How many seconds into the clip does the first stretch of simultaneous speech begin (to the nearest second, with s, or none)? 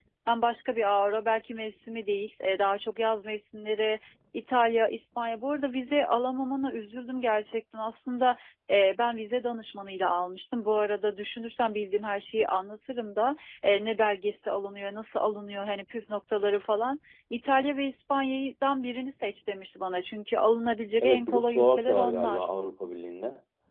21 s